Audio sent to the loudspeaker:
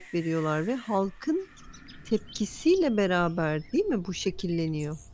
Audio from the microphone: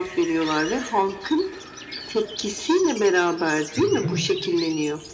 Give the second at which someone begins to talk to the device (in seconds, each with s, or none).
3.8 s